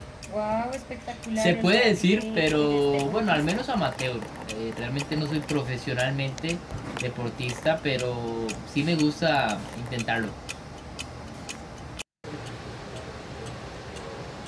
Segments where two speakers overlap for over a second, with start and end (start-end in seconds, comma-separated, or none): 1.4-3.6